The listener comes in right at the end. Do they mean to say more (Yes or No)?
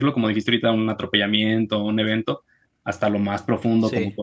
No